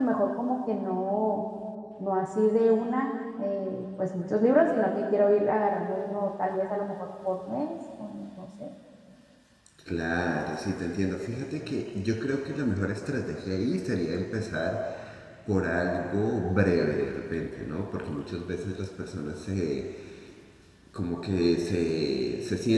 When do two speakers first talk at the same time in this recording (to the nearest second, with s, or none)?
none